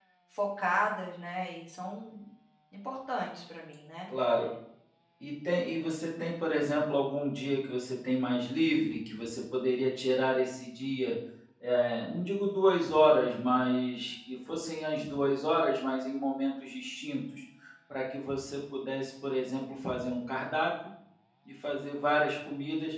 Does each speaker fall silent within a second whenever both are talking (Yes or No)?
Yes